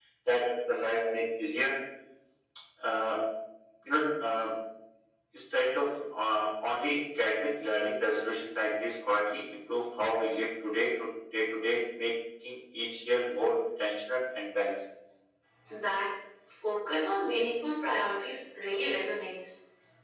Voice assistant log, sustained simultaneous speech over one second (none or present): none